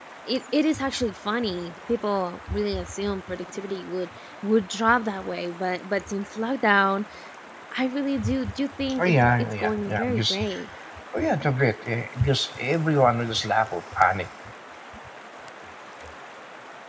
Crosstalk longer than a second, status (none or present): present